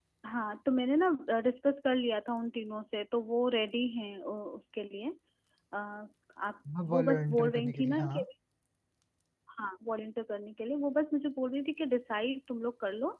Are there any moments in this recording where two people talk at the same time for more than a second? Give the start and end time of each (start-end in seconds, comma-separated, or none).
6.8-8.2